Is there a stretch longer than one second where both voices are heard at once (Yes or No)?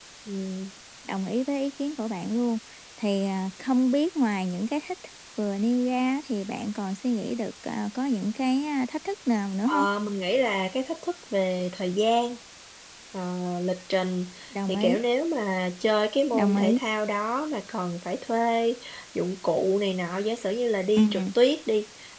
No